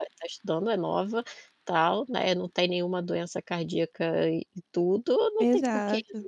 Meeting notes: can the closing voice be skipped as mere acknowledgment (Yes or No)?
Yes